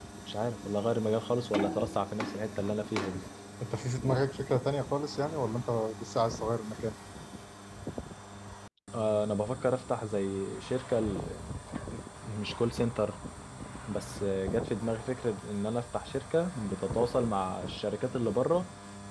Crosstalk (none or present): none